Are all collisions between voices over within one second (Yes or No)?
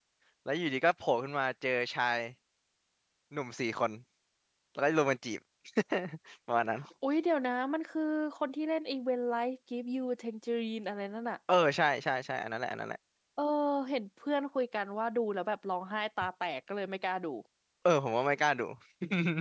Yes